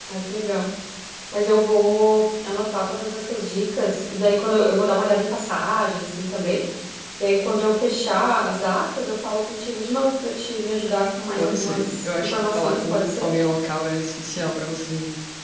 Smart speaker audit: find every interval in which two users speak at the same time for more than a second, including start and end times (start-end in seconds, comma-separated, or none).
11.4-13.3